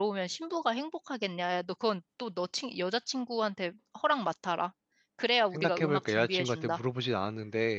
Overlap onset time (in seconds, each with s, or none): 5.5 s